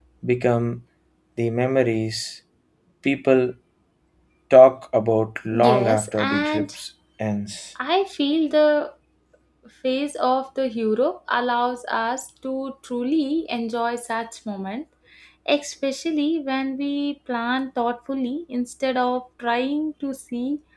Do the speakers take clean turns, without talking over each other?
No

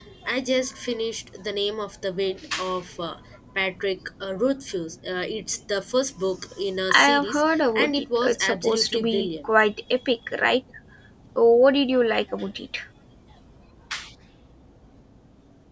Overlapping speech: Yes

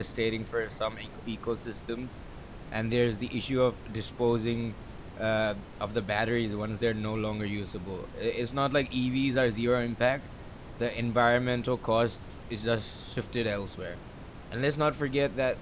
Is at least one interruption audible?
No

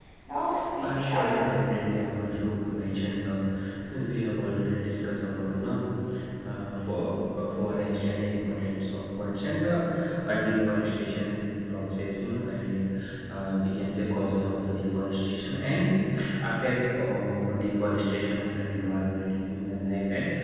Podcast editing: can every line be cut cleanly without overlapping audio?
No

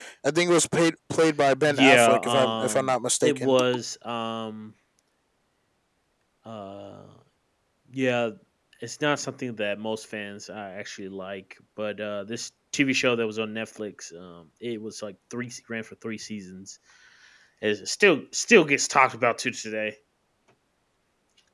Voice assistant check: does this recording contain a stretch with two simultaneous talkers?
Yes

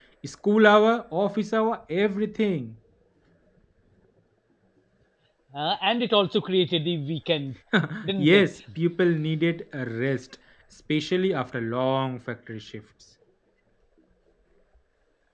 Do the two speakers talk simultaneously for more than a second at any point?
No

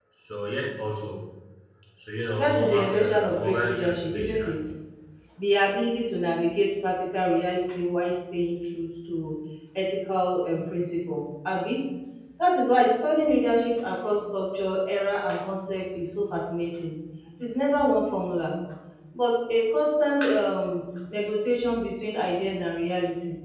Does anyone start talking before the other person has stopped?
Yes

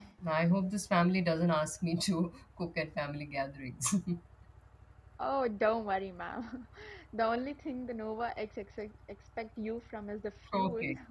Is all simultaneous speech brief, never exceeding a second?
Yes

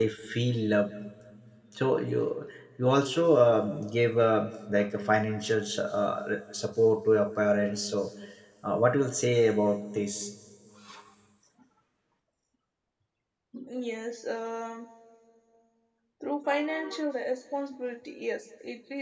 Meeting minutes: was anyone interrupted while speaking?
No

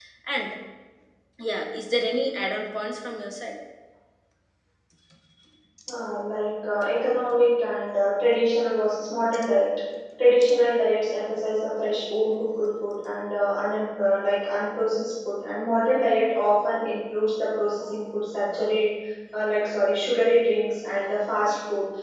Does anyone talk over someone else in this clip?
No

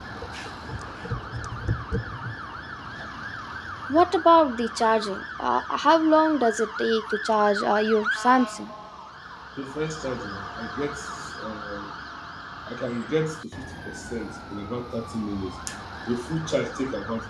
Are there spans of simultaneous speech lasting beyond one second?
No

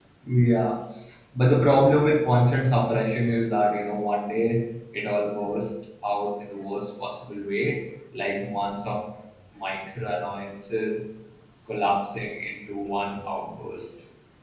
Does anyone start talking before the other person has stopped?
No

